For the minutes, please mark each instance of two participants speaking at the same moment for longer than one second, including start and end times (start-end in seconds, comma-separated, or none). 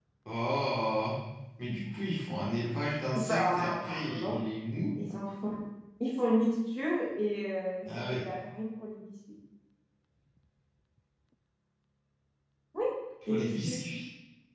3.2-4.4